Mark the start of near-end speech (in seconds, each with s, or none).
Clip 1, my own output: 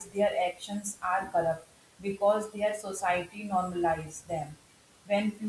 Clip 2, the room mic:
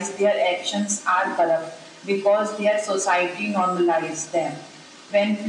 none